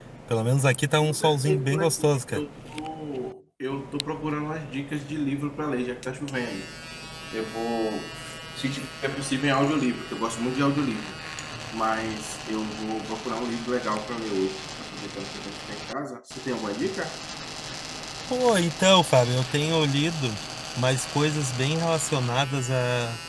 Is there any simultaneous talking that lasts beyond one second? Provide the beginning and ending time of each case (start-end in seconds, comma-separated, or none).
1.0-2.4